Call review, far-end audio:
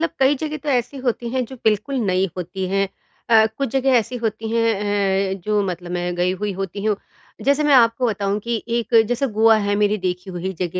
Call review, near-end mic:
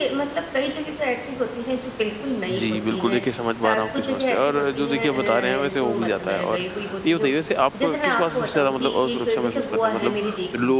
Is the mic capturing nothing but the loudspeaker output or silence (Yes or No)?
No